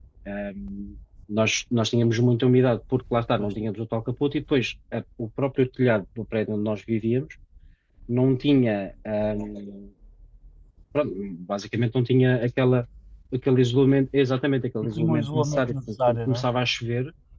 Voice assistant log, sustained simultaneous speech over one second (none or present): present